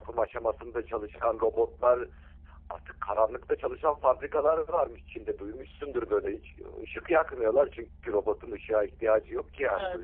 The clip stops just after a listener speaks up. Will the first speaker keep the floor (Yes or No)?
No